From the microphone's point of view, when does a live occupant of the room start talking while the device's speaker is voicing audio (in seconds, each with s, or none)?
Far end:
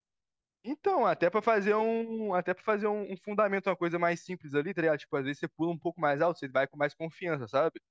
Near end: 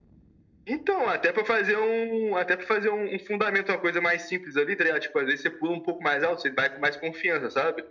none